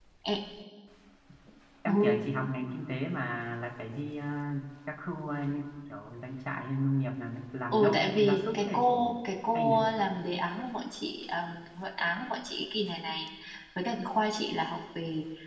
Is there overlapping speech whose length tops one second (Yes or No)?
Yes